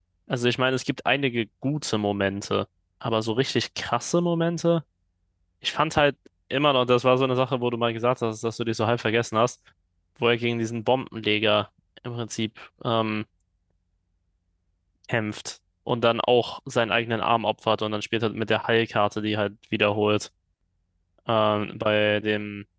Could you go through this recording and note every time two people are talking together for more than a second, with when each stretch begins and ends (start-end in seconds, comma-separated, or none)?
none